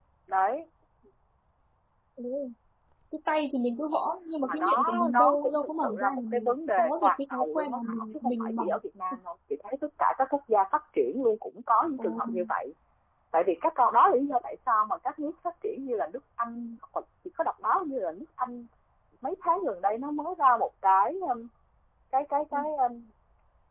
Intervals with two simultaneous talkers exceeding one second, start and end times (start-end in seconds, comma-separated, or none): 4.4-8.6